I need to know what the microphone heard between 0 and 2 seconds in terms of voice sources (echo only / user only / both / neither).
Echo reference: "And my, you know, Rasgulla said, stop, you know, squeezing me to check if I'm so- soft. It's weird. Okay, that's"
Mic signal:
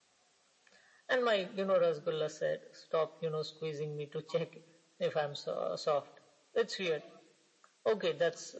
echo only